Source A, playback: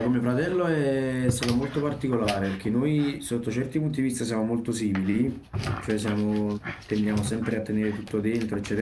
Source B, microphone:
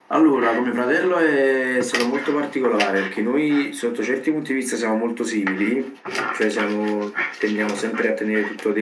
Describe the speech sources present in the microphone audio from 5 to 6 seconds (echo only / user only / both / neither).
echo only